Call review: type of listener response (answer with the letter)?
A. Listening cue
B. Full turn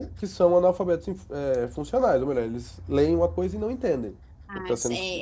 B